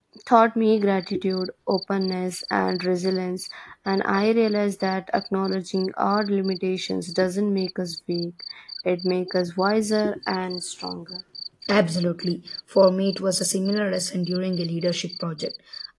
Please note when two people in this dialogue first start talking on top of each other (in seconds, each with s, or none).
none